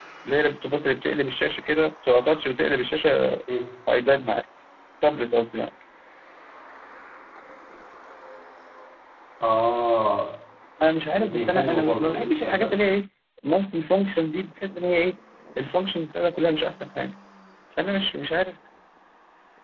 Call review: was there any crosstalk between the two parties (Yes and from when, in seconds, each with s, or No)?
Yes, from 11.2 s